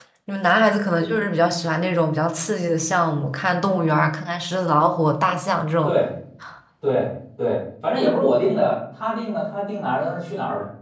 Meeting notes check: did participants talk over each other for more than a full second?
No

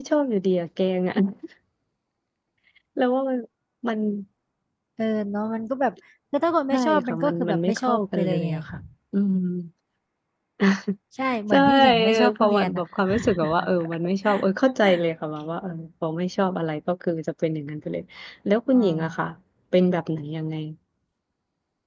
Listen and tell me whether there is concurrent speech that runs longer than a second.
Yes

